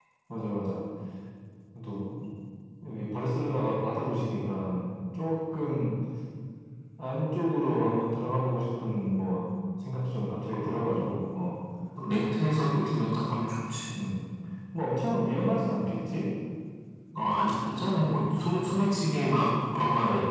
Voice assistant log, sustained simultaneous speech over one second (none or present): none